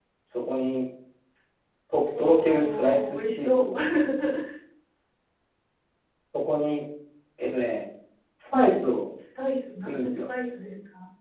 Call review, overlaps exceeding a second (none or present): present